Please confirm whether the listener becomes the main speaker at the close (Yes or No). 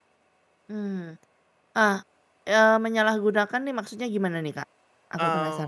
Yes